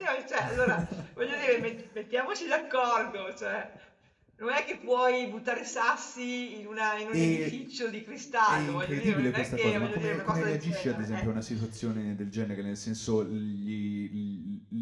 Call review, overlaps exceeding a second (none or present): present